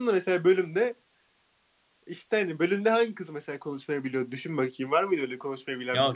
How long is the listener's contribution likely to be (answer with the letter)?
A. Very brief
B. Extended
B